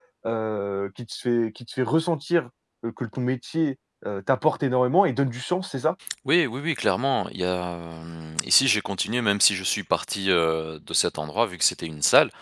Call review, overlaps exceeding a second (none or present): none